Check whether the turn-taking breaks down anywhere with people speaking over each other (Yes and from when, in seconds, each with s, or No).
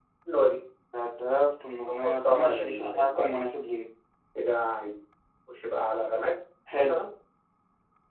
Yes, from 1.9 s